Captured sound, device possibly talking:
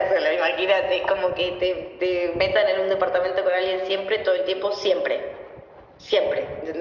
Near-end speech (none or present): none